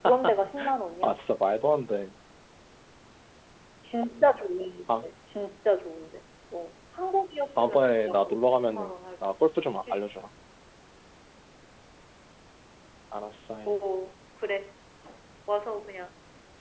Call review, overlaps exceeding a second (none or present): present